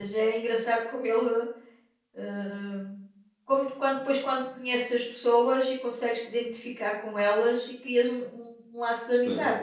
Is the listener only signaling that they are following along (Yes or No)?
No